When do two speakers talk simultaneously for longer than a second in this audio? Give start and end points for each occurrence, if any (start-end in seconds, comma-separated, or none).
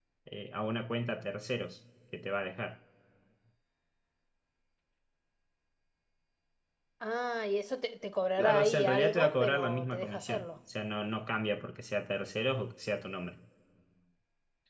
8.4-10.4